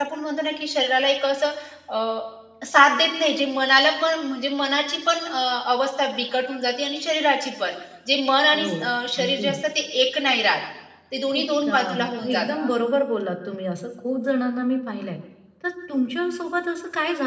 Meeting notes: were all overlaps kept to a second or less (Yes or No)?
No